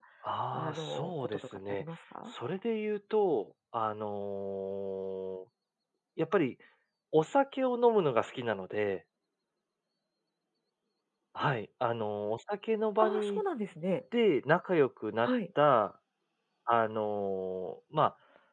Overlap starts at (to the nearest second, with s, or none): 1 s